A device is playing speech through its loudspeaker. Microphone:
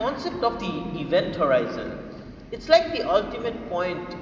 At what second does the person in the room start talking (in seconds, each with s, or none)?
none